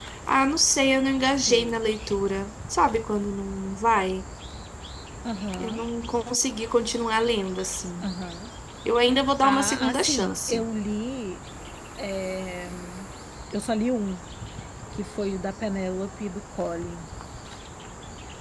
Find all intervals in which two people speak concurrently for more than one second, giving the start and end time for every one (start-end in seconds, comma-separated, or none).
9.4-10.6